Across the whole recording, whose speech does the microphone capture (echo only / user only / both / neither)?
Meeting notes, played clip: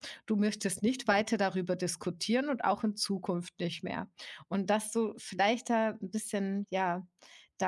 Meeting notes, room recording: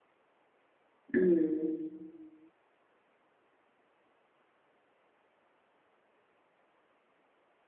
user only